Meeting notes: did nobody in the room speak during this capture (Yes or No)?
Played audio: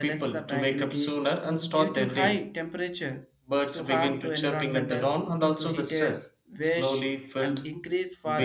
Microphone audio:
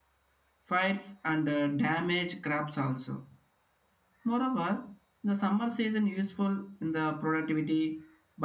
No